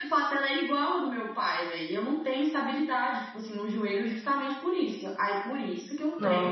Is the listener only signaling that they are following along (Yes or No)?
Yes